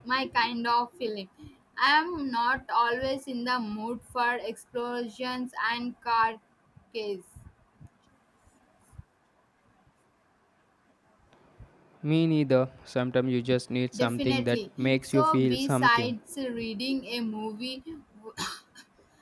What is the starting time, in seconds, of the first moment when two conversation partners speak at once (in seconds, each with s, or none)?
13.9 s